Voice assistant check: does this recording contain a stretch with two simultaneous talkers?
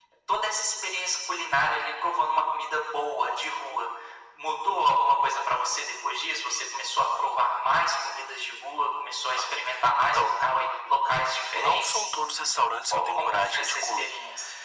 Yes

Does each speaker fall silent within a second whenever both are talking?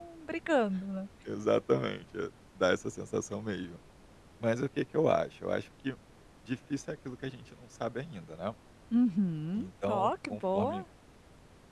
No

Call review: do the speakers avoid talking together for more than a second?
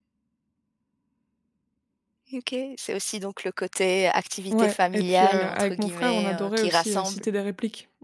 No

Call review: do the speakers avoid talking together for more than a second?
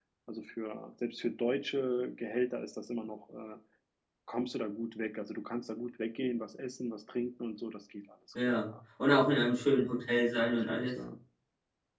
Yes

